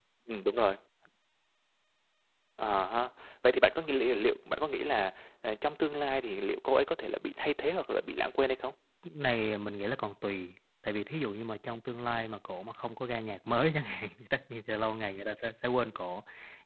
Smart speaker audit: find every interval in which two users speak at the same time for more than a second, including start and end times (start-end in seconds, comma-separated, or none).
none